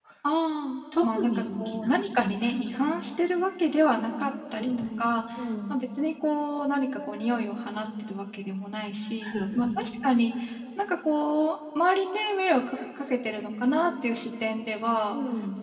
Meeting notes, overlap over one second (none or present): present